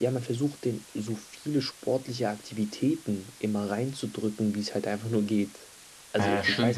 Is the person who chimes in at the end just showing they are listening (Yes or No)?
No